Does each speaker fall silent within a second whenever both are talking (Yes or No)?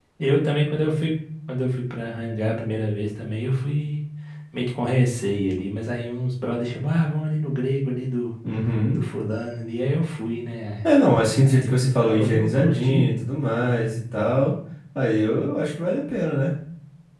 No